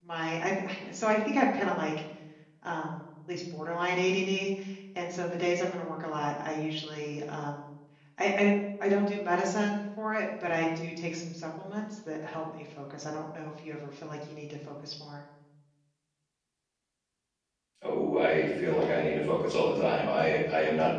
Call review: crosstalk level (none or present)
none